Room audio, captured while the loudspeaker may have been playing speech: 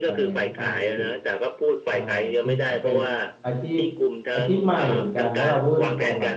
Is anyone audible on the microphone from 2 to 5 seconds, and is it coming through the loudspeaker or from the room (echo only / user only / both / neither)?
both